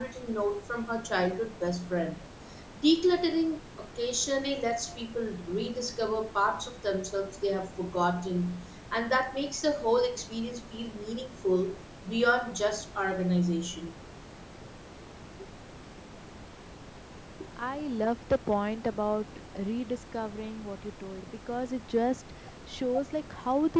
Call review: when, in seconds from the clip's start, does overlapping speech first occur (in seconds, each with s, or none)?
none